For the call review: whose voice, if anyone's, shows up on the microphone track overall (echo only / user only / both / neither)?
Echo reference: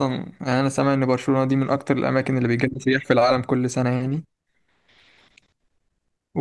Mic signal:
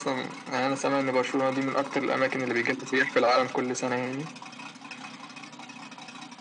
echo only